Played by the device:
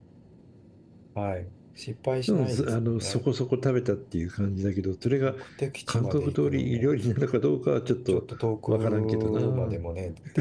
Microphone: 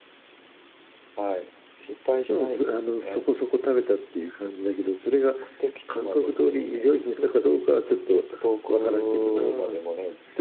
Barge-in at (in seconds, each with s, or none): none